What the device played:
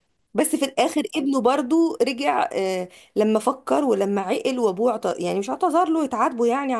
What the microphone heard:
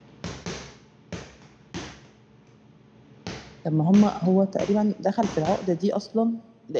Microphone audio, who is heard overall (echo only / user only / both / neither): user only